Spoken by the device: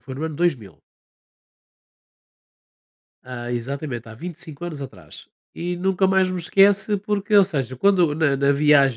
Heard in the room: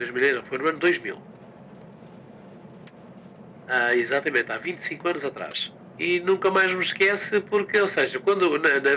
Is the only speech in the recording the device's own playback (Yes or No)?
Yes